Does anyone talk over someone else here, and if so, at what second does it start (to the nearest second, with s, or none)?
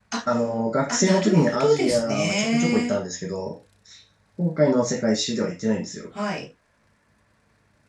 1 s